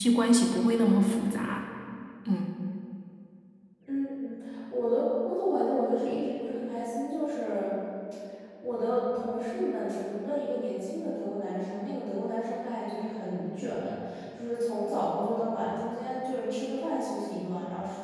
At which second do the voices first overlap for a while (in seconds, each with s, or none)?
none